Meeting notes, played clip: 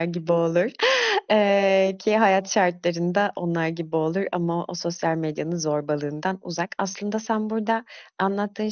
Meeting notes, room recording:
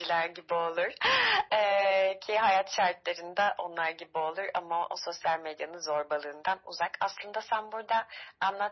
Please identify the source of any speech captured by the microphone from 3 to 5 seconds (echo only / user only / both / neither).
echo only